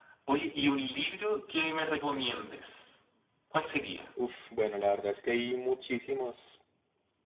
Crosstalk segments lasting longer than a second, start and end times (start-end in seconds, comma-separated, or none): none